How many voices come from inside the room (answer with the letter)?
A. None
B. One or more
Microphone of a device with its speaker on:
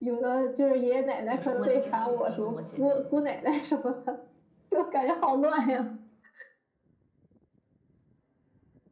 B